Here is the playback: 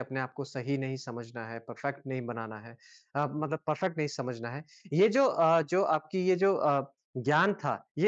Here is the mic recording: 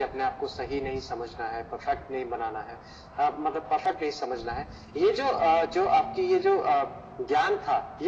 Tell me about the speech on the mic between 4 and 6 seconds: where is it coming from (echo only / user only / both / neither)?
echo only